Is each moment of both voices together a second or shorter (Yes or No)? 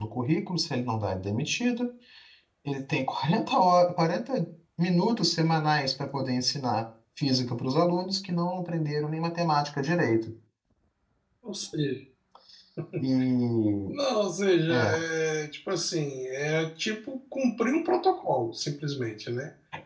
Yes